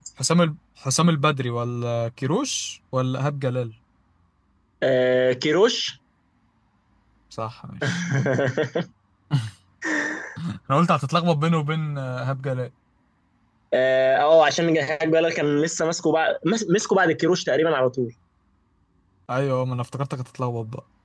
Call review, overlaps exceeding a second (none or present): none